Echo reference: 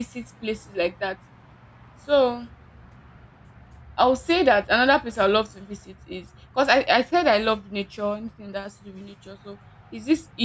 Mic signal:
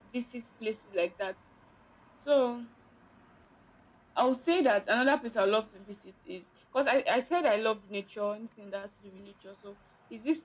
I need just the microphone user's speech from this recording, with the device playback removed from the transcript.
none

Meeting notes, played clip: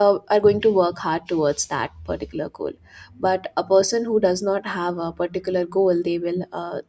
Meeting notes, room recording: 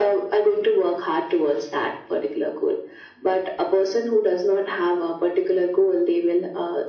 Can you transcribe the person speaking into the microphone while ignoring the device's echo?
none

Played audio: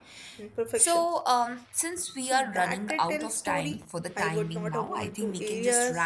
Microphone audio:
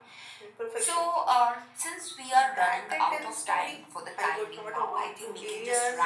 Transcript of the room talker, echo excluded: none

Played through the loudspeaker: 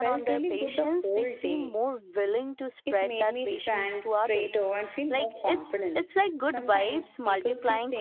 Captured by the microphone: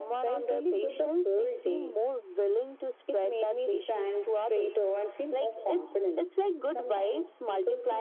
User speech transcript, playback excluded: none

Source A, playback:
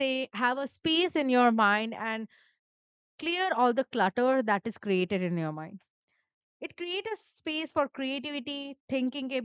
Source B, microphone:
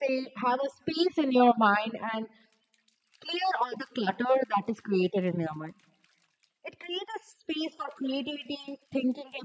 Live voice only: none

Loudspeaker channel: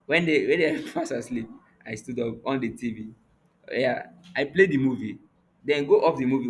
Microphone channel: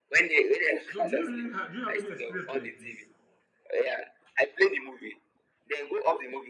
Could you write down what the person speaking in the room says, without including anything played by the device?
So do you really have do you have any experience like this?

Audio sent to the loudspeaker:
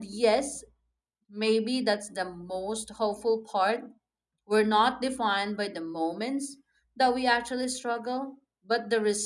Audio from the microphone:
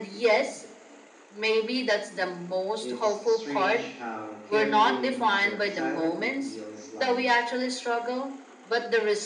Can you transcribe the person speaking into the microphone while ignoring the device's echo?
It's strange how carrying them silently feels like

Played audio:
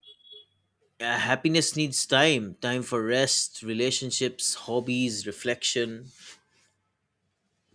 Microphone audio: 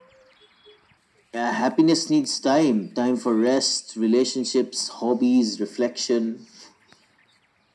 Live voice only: none

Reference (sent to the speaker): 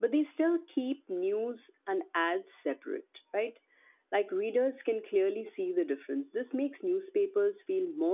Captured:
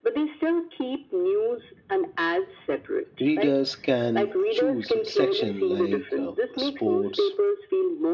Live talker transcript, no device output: readers can choose a section like um, sports

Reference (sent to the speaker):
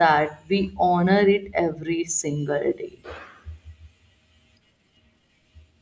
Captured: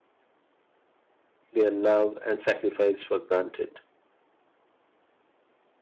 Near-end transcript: their love and sacrifice for granted.

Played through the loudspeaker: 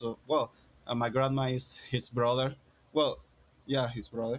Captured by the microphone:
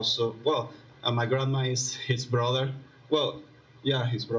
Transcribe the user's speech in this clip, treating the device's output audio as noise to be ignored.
none

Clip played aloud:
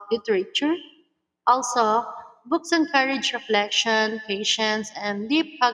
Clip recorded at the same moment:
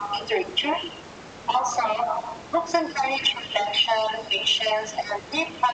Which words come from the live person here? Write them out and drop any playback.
none

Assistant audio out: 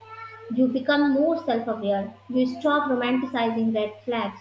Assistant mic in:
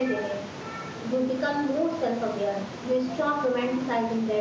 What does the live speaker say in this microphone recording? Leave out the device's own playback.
none

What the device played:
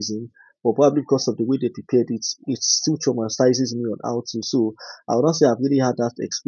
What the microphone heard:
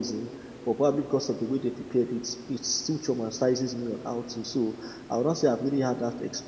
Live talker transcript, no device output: none

